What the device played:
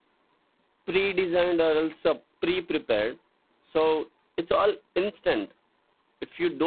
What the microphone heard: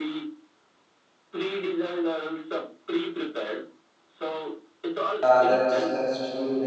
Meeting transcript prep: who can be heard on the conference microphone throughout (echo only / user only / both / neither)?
both